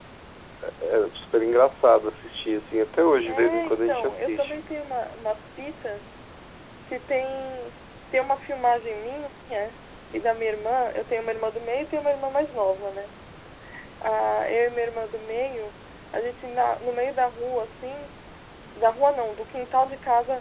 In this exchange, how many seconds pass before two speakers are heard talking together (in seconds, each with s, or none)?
3.2 s